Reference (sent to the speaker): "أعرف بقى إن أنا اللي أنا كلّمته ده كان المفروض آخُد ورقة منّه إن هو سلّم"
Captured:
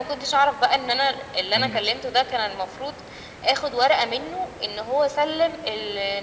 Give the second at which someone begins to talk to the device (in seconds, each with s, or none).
1.6 s